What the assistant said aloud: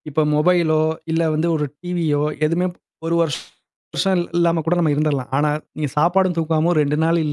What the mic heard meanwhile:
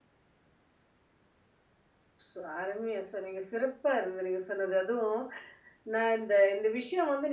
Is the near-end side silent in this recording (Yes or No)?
No